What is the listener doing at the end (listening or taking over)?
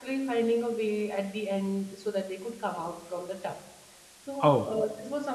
listening